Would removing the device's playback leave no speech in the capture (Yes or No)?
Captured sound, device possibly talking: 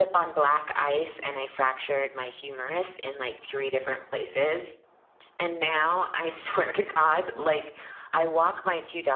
No